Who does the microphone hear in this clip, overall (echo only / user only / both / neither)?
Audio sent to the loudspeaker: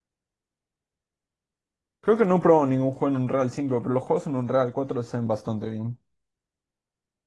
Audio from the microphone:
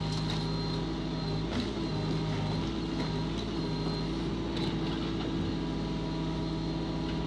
neither